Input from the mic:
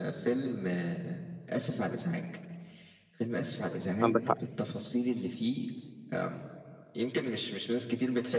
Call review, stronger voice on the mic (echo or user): user